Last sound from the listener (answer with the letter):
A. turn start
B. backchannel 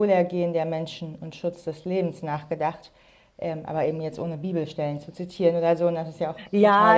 A